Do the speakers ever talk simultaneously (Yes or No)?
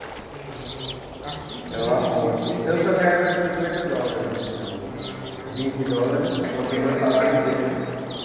Yes